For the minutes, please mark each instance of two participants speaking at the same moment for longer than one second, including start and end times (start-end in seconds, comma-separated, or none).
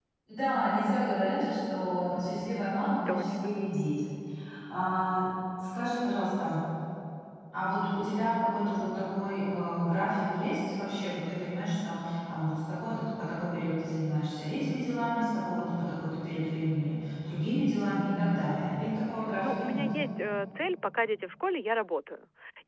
none